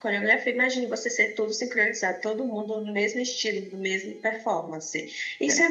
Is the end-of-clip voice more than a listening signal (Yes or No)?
No